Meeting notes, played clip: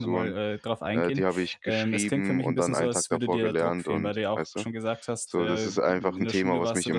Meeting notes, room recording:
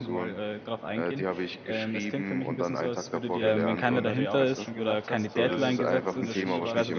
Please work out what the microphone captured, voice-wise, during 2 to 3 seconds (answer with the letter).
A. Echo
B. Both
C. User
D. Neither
A